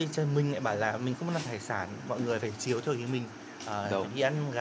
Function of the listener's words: listening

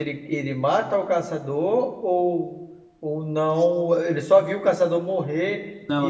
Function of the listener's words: taking over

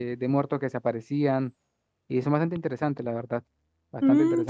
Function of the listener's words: taking over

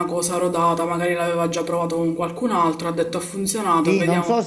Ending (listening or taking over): taking over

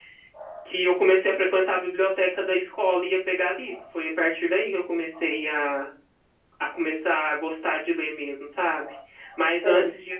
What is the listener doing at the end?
listening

